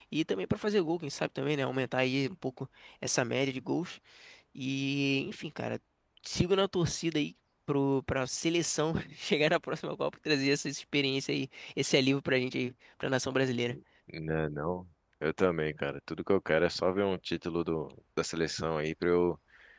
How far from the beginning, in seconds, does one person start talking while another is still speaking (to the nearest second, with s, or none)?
none